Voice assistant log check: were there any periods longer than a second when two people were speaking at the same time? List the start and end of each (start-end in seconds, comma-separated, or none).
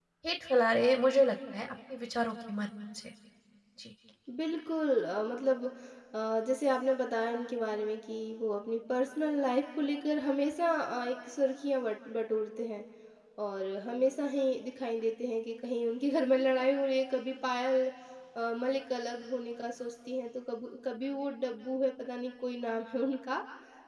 none